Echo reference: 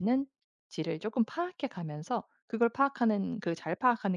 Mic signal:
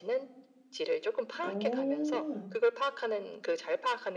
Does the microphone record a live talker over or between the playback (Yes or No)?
Yes